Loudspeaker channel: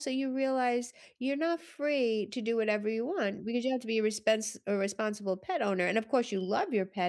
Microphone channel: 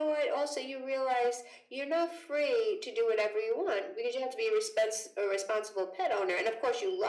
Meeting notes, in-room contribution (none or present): none